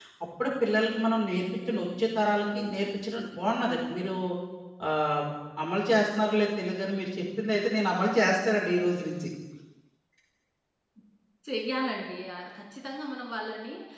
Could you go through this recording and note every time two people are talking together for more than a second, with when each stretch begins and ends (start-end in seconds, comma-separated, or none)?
none